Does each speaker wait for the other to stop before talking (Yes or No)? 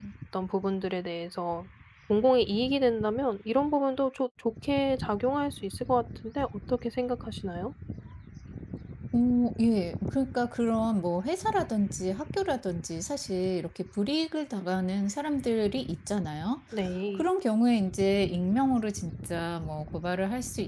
Yes